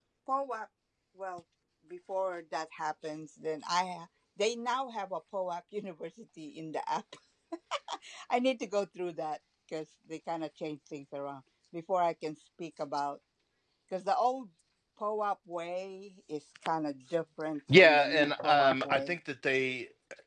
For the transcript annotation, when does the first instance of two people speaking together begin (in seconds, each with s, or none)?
17.7 s